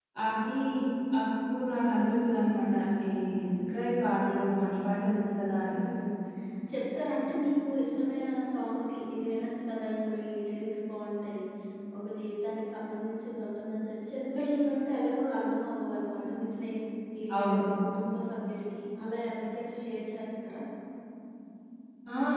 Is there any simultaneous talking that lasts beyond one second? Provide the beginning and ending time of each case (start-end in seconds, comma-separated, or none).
none